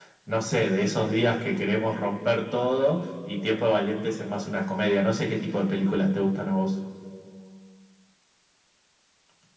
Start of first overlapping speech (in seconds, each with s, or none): none